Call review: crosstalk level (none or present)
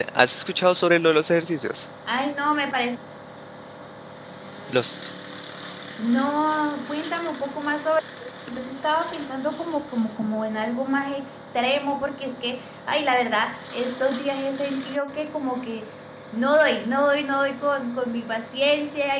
none